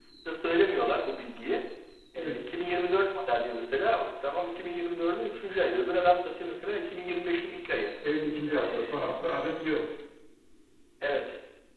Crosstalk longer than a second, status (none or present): none